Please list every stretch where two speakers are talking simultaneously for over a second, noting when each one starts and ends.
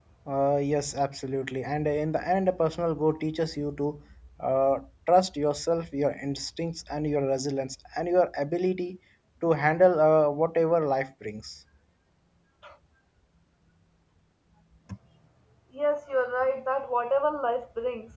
none

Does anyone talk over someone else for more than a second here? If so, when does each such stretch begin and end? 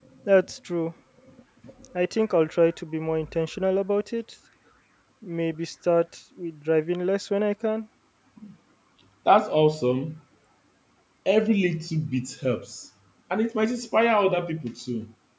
none

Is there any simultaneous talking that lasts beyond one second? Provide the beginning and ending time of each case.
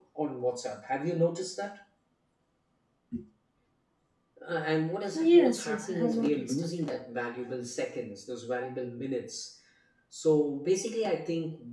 5.2-6.6

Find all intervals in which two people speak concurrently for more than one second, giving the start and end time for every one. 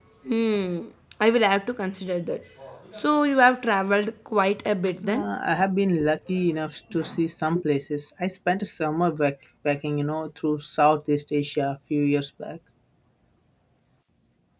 none

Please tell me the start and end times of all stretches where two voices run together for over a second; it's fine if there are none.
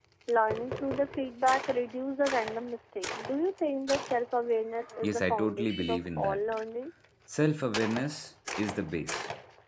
5.0-6.4

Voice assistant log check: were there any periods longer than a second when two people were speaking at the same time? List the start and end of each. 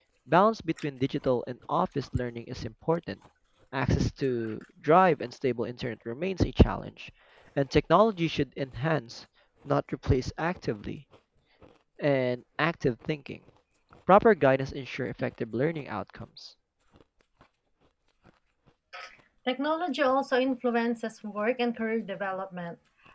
none

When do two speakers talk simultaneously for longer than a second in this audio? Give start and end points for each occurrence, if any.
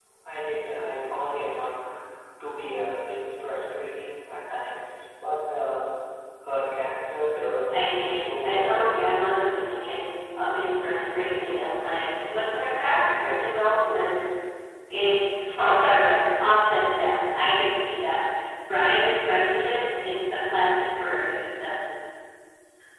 7.7-9.1

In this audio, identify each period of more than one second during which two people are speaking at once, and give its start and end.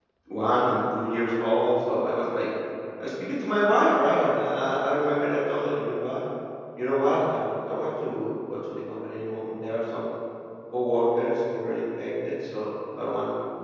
none

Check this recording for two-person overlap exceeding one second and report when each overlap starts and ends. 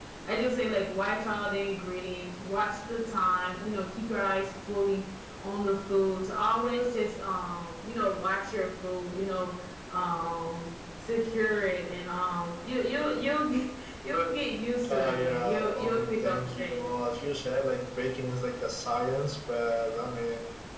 14.9-16.8

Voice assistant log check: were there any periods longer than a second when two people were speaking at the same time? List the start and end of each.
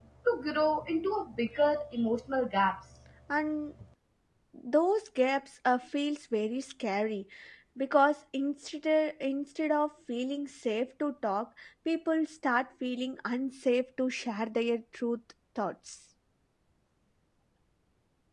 none

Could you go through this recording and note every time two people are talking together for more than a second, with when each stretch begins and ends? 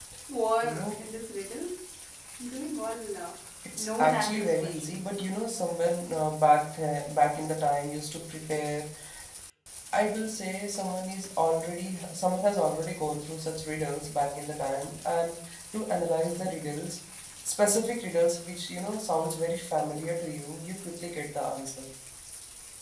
3.8-5.0

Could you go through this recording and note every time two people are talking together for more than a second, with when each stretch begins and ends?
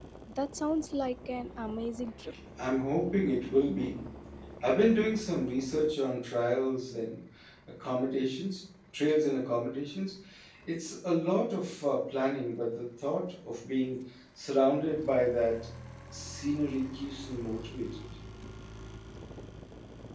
none

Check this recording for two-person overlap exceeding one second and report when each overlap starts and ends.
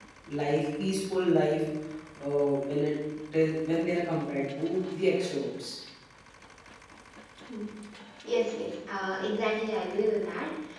none

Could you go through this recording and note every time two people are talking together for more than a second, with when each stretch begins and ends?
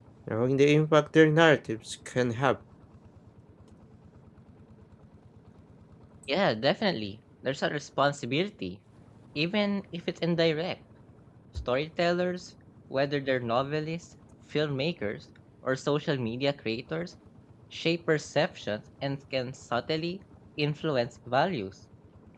none

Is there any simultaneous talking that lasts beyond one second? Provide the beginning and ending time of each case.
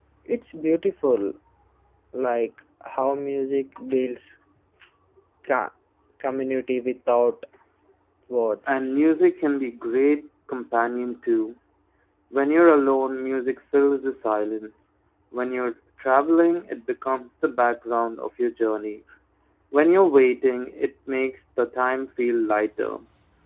none

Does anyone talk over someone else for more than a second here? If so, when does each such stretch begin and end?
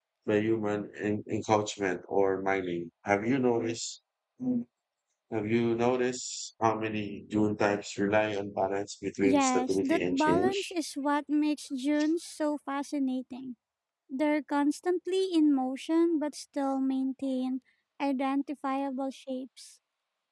9.2-10.7

